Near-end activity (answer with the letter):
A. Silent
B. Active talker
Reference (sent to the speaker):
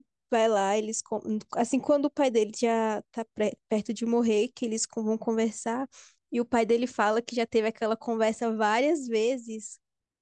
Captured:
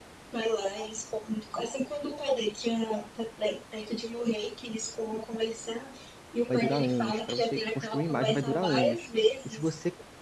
B